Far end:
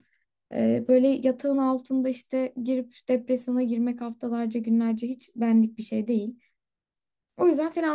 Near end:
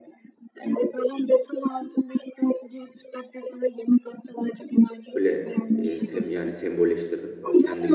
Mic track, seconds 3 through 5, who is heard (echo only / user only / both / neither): echo only